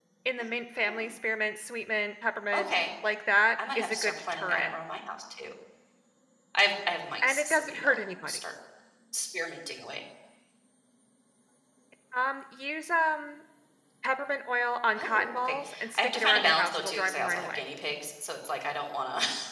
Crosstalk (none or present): present